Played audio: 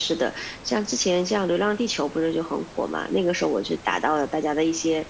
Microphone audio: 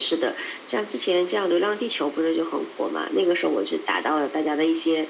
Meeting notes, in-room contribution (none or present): none